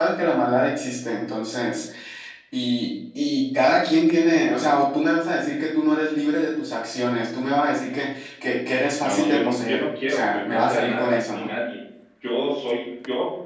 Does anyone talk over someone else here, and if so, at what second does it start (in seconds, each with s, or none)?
9.0 s